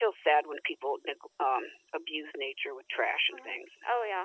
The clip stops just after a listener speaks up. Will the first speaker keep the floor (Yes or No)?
No